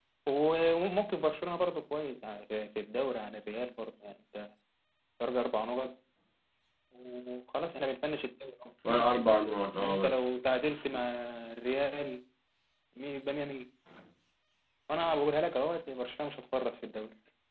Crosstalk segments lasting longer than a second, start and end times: none

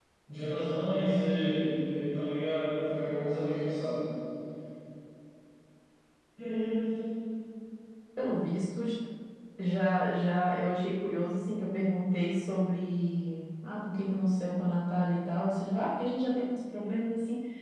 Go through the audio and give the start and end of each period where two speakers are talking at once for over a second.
none

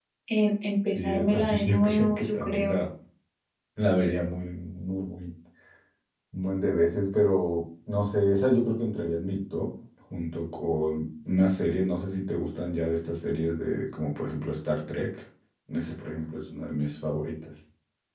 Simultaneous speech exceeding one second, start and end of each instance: 0.9-2.8

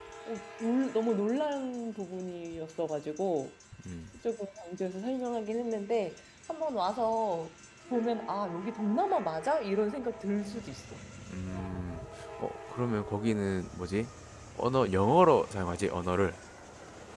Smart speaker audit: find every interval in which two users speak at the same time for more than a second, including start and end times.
none

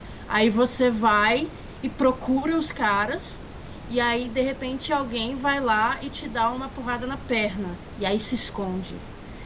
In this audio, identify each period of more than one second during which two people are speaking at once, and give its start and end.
none

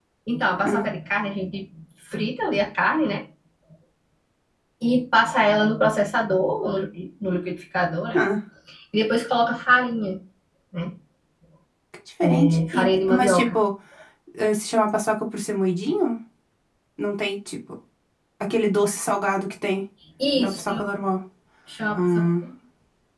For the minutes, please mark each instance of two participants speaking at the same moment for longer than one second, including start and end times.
12.3-13.5

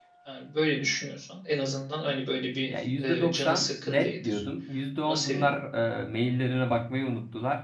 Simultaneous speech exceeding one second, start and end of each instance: 2.7-4.4

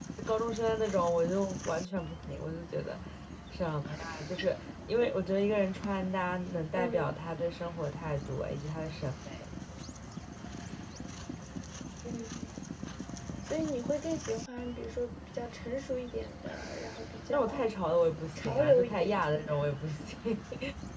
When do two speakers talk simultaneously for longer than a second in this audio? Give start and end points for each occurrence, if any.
18.4-20.0

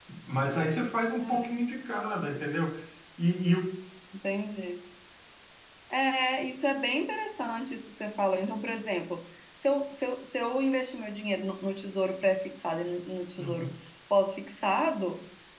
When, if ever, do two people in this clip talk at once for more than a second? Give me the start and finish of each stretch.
none

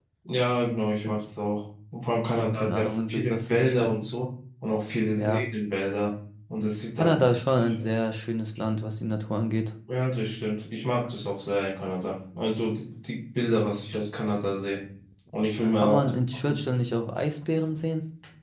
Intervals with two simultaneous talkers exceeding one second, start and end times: 2.3-4.0

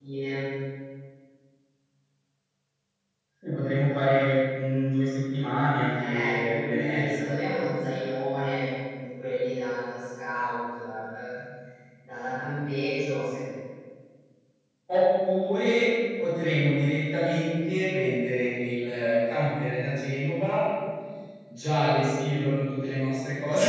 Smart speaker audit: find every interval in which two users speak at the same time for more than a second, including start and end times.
6.0-7.3

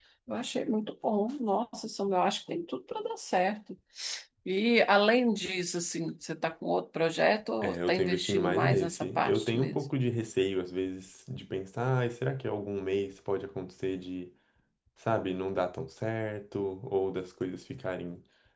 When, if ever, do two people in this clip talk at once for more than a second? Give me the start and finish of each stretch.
7.6-9.8

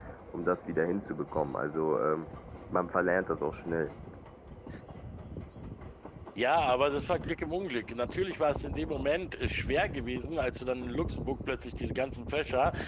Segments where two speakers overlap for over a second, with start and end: none

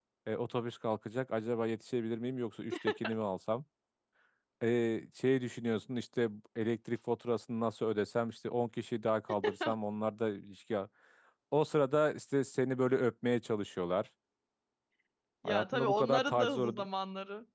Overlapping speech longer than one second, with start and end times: 15.4-16.9

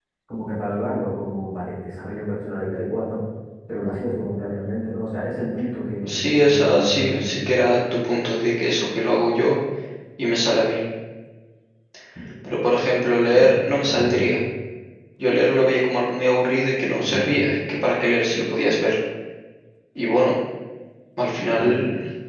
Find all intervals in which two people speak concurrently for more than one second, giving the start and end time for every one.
6.0-7.5

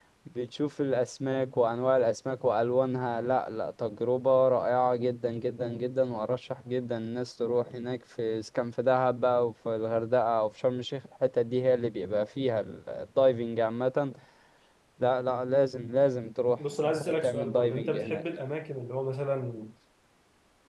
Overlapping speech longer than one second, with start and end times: 16.7-18.2

